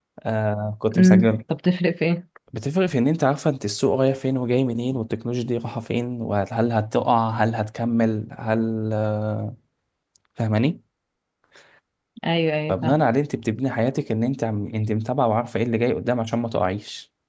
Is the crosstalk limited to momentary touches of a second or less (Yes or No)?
Yes